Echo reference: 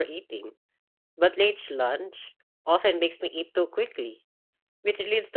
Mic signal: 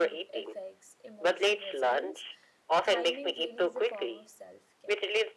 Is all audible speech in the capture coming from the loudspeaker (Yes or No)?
No